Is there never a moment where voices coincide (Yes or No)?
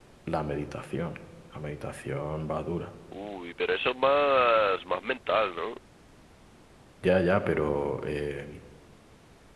Yes